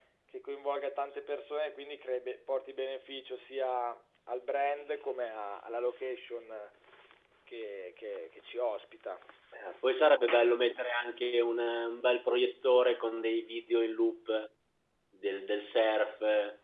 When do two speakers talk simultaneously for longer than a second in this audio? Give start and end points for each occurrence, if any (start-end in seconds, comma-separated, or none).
none